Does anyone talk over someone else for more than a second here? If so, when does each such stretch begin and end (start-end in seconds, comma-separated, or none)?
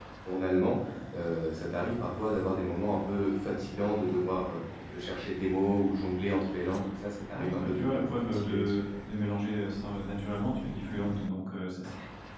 7.3-8.8